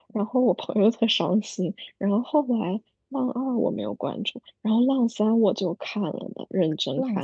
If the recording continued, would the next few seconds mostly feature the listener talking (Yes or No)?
Yes